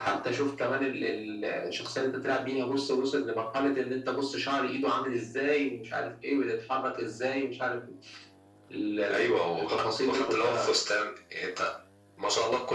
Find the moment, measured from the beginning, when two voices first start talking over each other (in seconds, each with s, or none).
9.1 s